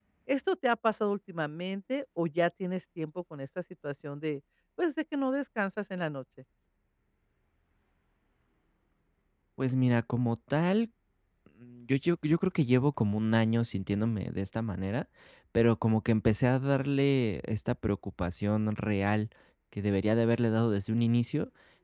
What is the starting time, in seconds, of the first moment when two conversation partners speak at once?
none

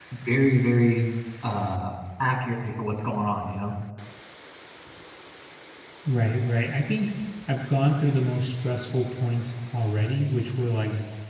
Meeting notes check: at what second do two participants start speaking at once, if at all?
none

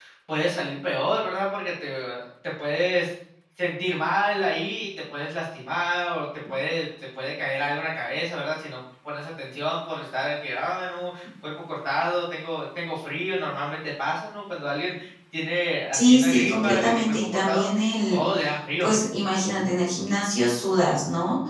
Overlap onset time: 15.9 s

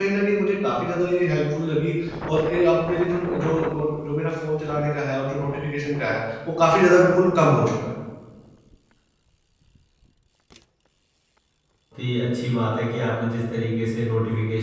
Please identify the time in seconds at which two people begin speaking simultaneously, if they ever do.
none

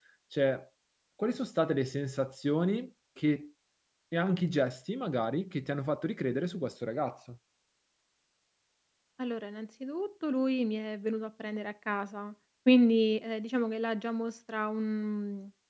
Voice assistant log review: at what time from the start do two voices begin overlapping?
none

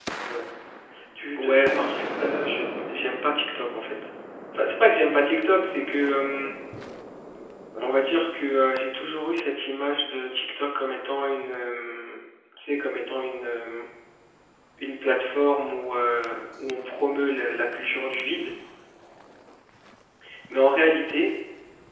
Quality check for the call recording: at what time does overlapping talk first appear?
1.4 s

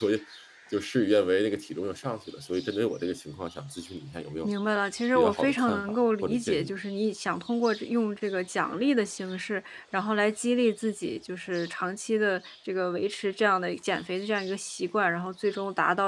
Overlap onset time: 5.2 s

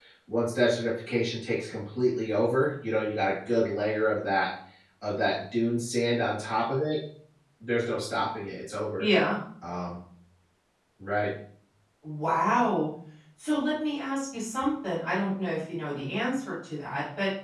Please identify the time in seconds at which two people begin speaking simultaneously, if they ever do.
none

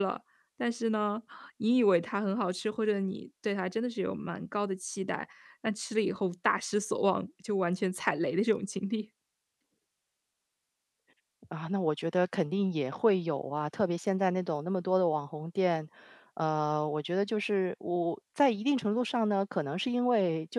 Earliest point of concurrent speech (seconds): none

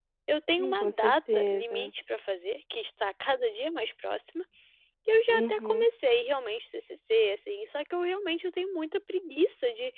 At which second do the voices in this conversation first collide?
0.6 s

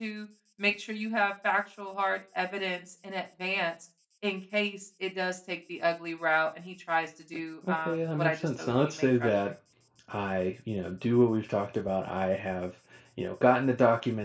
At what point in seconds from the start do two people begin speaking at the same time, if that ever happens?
7.6 s

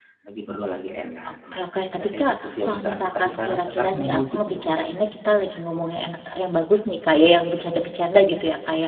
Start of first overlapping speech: 1.3 s

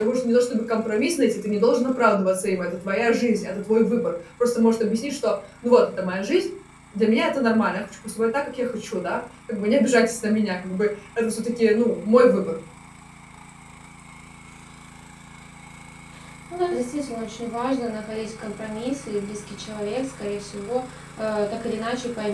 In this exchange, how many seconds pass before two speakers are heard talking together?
none

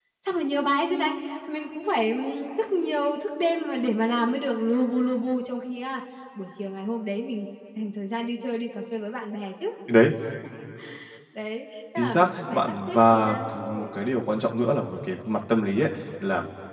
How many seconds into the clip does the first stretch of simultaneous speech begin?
12.0 s

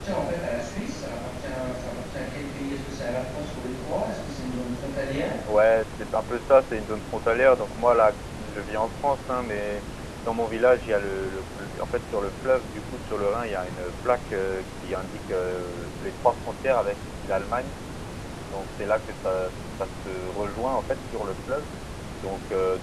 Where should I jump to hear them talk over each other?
none

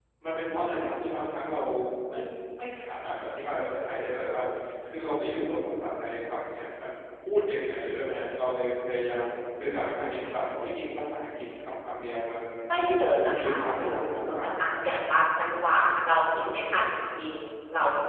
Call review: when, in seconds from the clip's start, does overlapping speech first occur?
13.2 s

